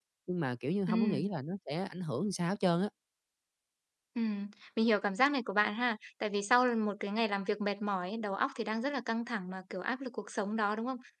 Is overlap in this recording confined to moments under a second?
Yes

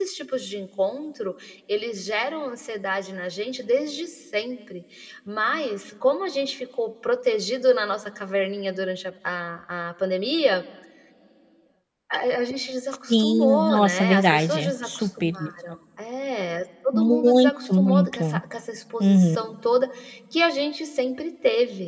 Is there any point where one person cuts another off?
Yes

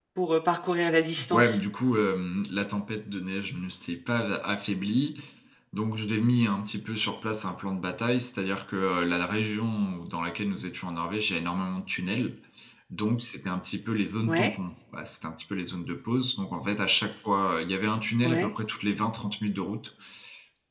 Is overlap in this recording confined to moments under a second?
Yes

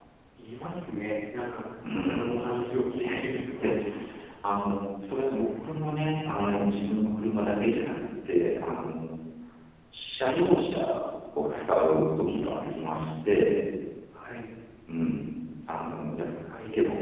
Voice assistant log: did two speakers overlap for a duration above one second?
Yes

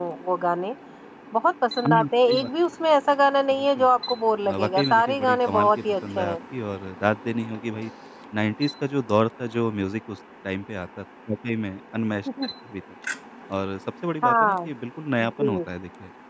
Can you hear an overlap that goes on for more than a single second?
Yes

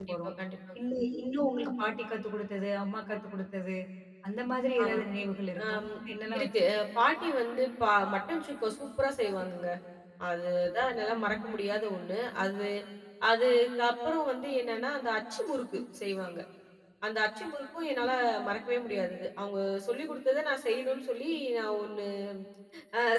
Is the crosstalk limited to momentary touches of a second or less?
Yes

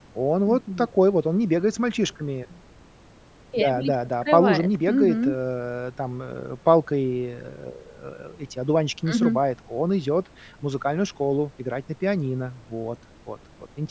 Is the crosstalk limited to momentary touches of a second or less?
No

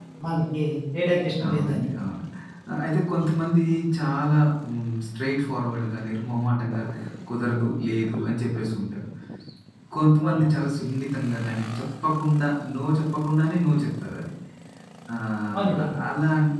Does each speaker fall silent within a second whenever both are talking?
Yes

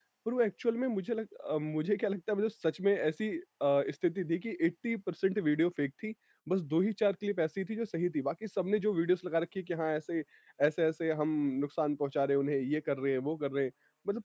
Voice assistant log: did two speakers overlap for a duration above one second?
No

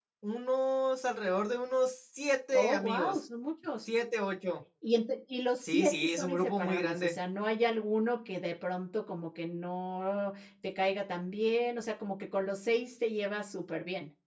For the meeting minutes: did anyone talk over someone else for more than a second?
Yes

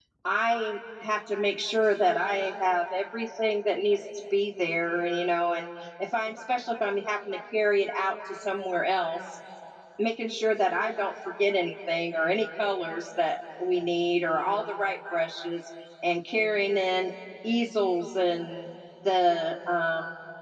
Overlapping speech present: No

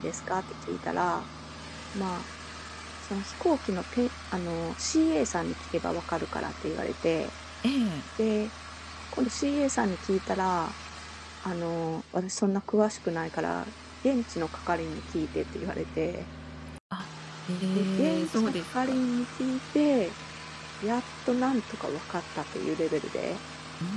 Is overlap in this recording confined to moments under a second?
No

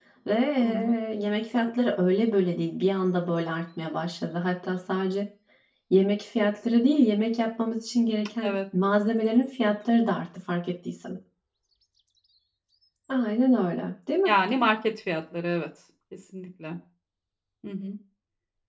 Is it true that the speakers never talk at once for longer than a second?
Yes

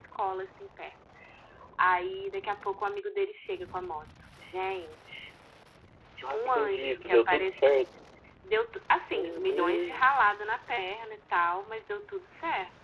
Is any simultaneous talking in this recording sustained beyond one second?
Yes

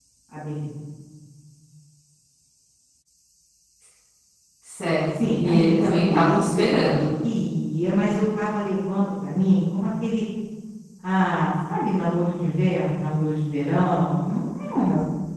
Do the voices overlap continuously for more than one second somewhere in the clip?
Yes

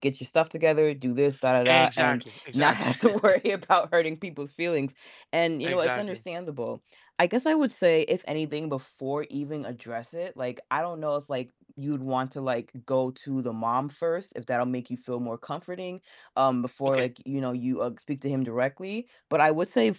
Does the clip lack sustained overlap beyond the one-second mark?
No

